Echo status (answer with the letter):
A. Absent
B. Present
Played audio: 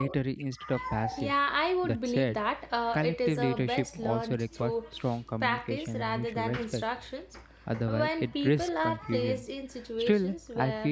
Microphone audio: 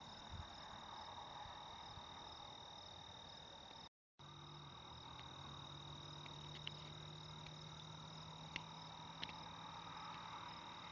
A